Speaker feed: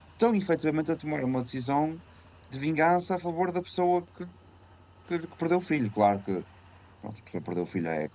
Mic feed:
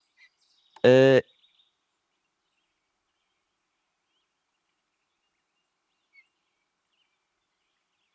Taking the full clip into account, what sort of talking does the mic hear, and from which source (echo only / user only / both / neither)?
user only